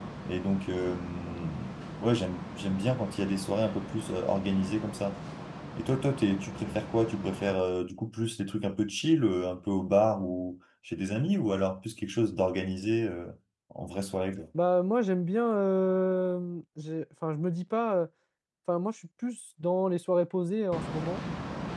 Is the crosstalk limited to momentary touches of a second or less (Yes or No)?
Yes